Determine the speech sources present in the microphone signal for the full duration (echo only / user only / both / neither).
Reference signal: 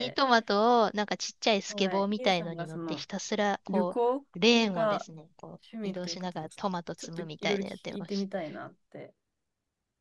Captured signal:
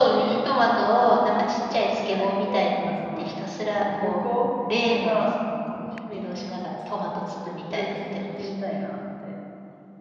echo only